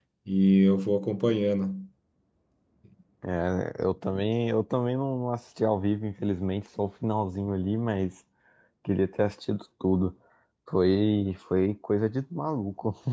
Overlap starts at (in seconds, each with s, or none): none